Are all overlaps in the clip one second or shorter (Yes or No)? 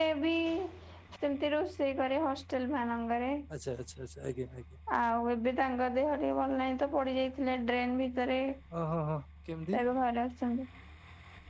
Yes